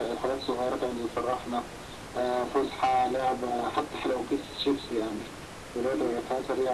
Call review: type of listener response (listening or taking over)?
listening